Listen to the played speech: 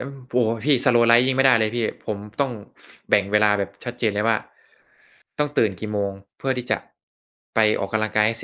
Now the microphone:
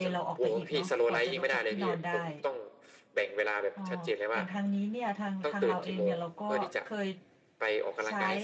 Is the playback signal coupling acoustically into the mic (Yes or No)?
Yes